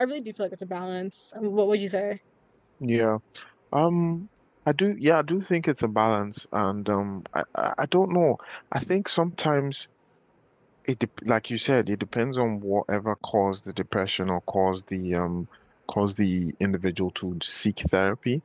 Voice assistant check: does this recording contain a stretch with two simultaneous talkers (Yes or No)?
No